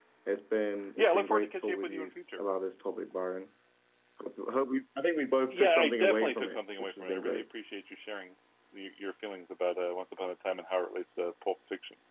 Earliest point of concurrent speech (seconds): 1.0 s

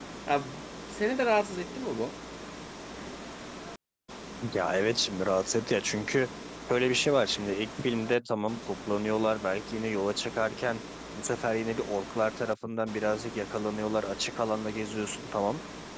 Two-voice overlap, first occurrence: none

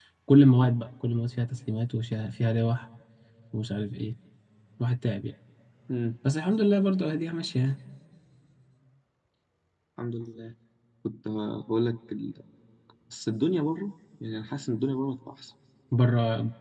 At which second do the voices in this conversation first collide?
none

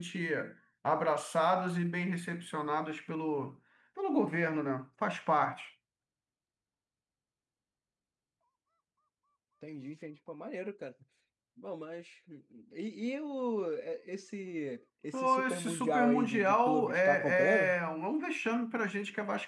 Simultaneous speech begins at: 15.1 s

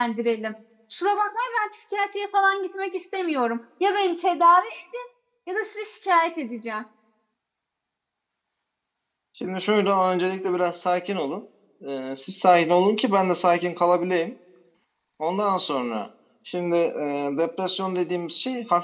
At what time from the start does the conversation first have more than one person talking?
none

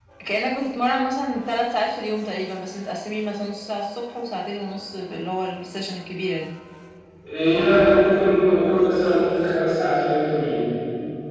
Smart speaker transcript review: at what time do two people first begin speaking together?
none

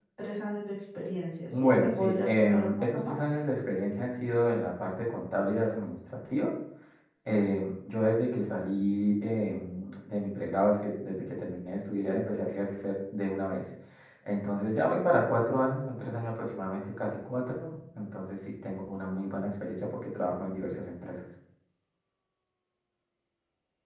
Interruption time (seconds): 1.5 s

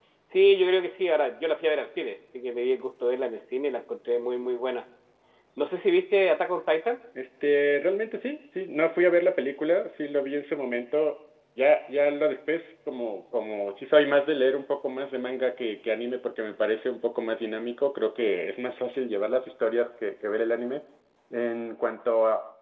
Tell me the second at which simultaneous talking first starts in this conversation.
none

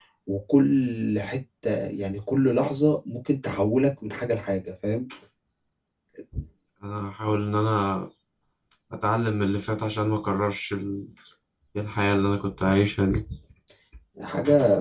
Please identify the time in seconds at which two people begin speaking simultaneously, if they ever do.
none

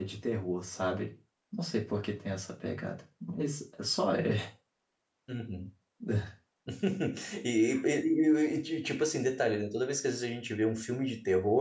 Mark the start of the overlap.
none

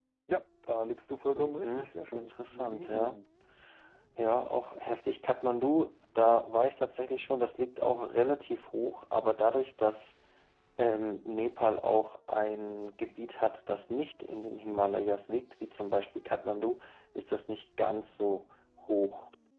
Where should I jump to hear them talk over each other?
1.4 s

